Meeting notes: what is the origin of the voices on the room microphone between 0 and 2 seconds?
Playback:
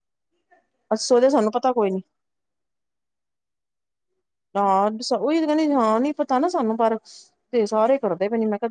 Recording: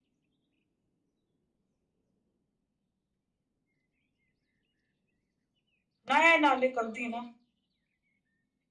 neither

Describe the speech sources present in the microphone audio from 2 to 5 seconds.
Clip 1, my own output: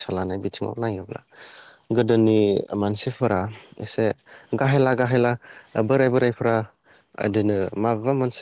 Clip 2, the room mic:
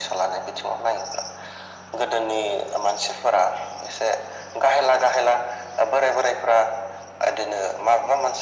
echo only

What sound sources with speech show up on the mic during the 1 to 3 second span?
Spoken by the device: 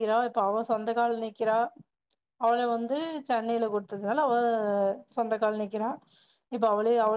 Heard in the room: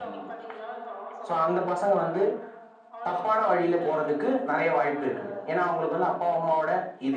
both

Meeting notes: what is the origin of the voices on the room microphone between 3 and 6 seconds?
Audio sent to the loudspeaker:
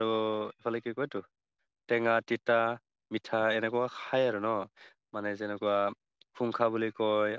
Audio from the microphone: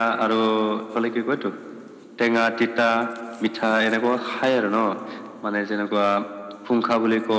echo only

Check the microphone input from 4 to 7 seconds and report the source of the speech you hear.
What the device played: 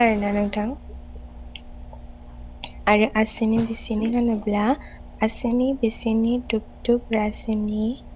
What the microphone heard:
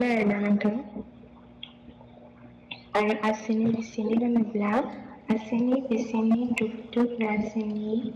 echo only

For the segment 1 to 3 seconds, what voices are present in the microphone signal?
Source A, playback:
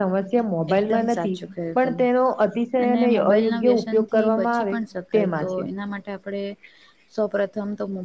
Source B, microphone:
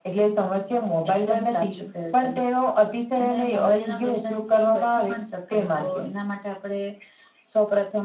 echo only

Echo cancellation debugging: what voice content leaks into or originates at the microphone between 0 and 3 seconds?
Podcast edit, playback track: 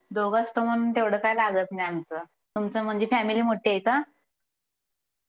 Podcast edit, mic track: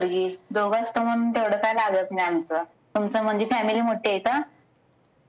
echo only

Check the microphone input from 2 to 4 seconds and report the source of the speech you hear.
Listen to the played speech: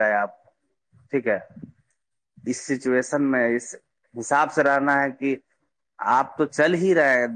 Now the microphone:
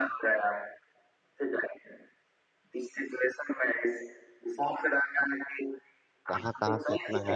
echo only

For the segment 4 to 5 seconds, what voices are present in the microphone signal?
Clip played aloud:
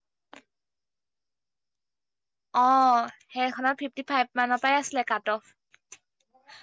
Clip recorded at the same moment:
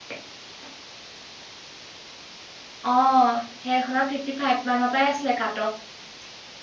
echo only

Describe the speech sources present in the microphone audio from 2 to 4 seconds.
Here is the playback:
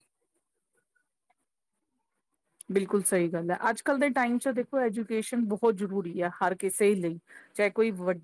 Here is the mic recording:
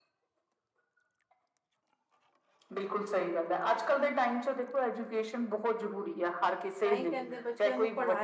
echo only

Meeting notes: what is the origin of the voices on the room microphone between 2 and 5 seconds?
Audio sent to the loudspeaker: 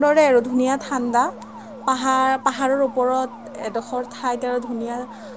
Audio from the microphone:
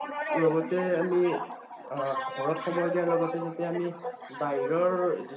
both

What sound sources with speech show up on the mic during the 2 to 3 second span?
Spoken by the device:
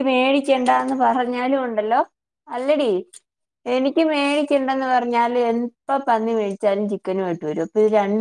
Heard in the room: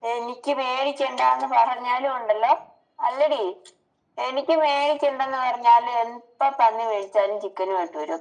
echo only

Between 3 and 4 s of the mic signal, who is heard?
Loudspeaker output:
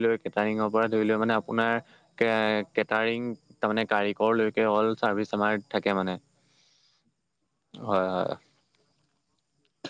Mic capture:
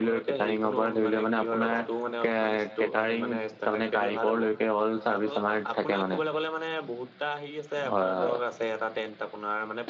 both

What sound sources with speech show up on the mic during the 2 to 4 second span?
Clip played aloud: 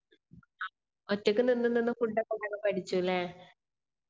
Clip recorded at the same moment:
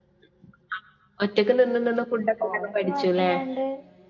both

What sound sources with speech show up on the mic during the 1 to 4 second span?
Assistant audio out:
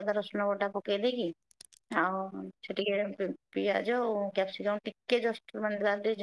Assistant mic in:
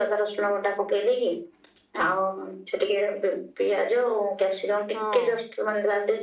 echo only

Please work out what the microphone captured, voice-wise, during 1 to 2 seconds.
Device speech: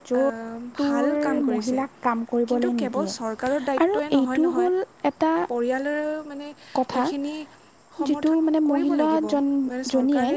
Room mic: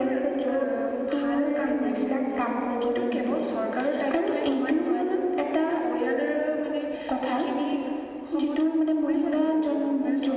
echo only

